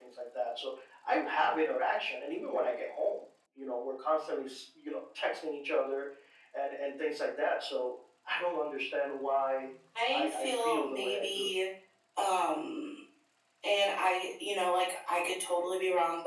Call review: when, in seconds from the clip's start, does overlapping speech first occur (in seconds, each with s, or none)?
10.1 s